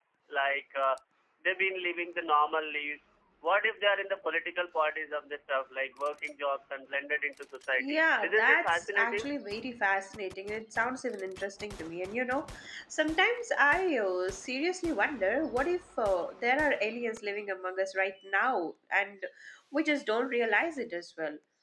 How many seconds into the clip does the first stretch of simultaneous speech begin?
7.7 s

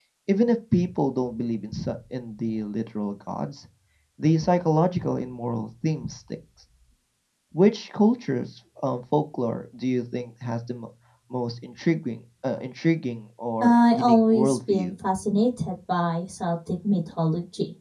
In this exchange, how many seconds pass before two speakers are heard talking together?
13.6 s

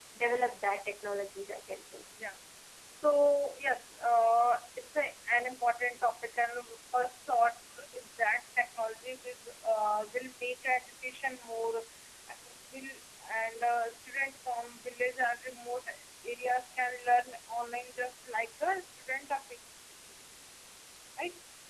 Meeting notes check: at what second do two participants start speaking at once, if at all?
none

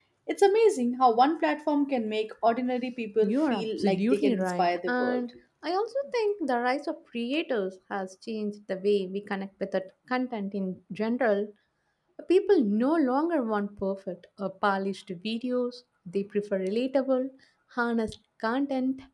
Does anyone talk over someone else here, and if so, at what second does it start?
3.2 s

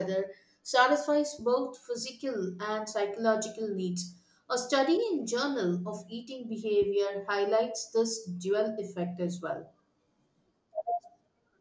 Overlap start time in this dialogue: none

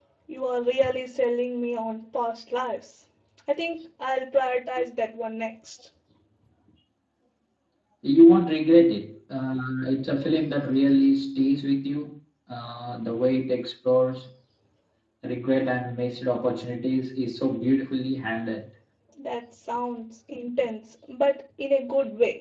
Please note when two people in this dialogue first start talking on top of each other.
none

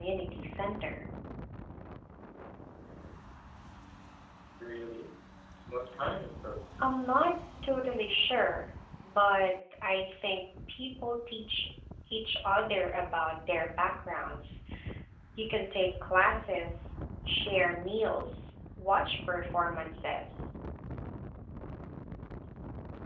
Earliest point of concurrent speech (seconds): none

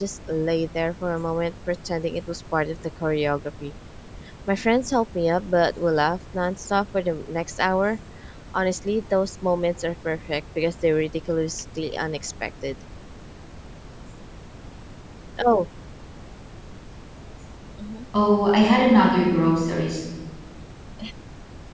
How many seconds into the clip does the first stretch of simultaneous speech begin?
none

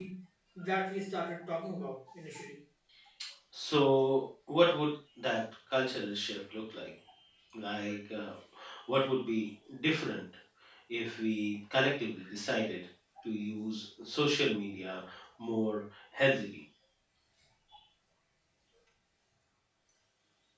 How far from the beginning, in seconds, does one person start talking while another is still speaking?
none

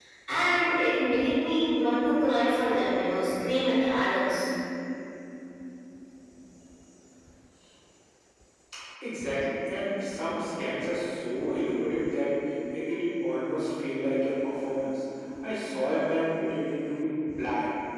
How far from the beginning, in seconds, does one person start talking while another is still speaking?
none

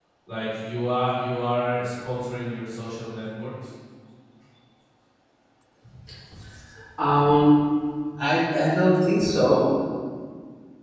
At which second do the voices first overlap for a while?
none

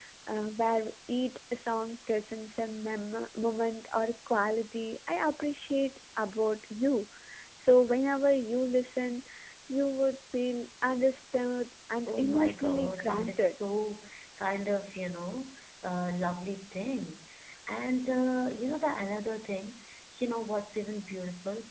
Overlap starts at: 12.1 s

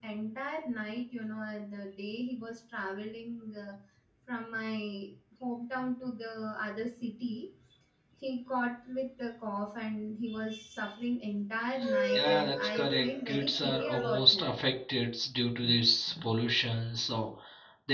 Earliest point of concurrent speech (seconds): 12.1 s

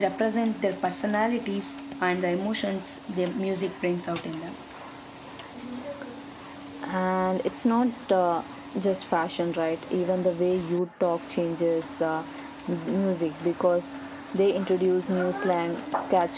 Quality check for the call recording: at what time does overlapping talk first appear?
none

